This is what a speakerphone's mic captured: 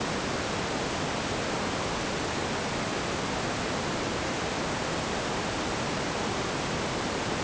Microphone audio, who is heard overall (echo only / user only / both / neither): neither